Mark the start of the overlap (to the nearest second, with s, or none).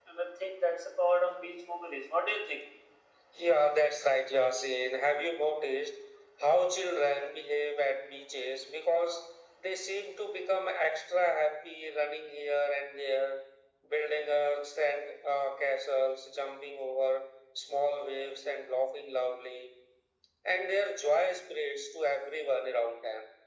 none